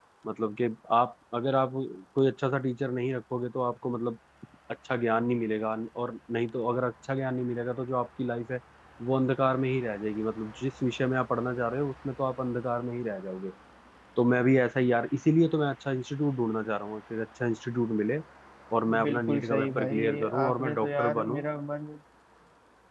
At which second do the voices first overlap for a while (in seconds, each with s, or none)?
19.0 s